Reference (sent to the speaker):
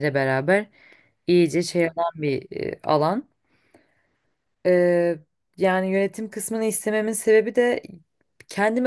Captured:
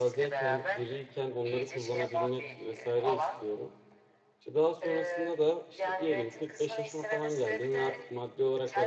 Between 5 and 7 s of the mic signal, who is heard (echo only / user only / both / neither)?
both